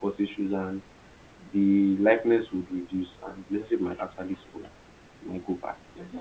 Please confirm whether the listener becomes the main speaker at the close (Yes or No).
Yes